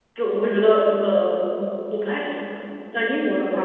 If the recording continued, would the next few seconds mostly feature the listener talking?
No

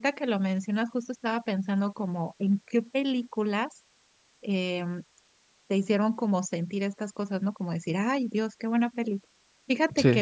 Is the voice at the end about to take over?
No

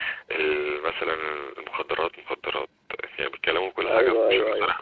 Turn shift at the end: Yes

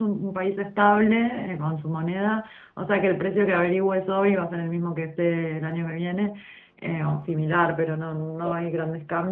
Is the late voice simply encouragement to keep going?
Yes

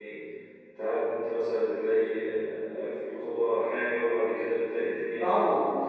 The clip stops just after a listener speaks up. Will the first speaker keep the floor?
No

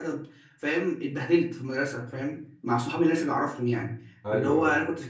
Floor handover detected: No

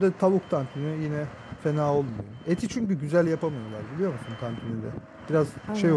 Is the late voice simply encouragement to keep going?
Yes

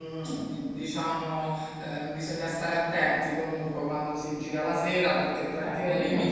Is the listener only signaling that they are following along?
No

